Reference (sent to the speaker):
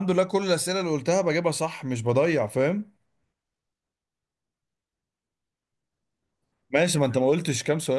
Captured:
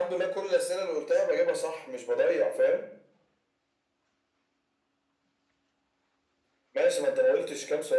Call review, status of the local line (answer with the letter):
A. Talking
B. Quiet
B